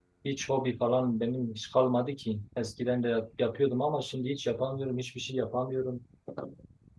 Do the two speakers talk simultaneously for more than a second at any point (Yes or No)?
No